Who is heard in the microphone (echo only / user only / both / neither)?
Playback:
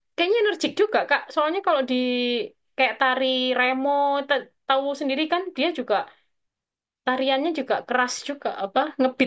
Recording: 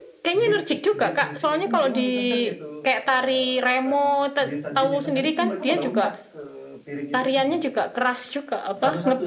both